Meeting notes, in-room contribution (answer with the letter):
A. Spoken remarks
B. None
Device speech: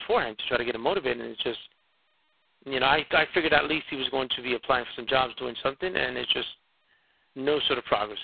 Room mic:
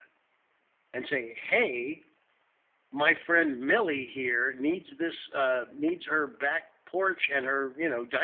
A